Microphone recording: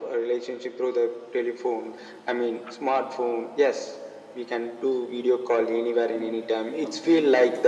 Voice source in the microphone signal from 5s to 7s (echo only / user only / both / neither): both